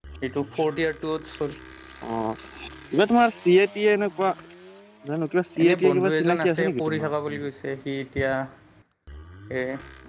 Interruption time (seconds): 6 s

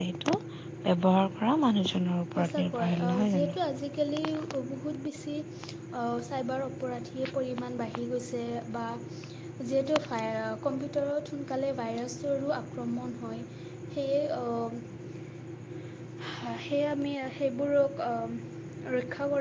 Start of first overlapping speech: 2 s

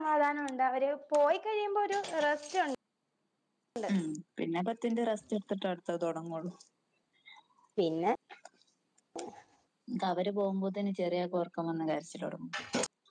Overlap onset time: none

